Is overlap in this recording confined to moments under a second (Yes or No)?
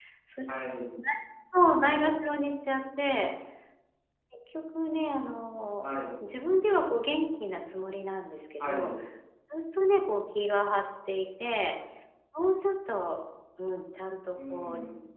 Yes